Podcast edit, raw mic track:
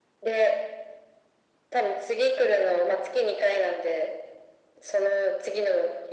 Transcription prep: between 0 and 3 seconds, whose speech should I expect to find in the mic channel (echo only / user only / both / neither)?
echo only